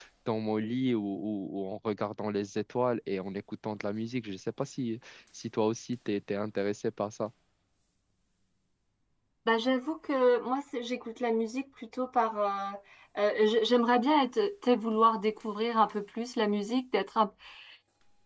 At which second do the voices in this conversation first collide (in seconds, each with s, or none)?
none